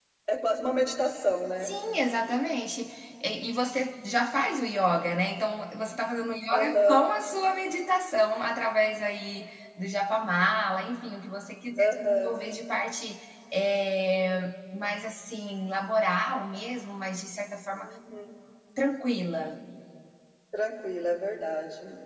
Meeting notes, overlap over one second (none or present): none